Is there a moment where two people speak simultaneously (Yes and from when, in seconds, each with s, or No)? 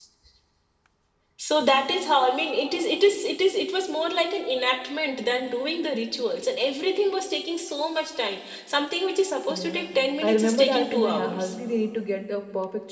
Yes, from 9.5 s